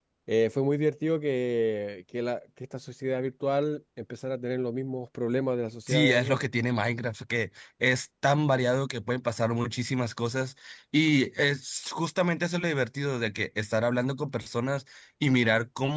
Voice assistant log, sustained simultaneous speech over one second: none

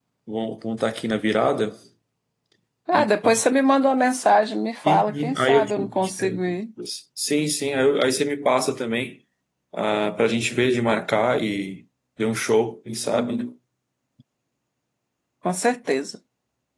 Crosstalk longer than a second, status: present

